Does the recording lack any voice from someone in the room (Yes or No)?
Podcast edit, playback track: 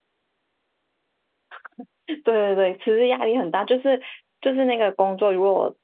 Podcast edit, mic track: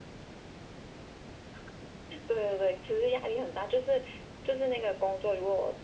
Yes